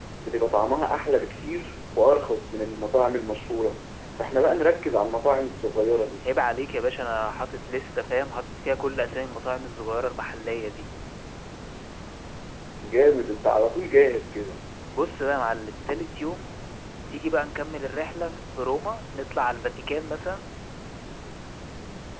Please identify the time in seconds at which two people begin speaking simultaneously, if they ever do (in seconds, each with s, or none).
none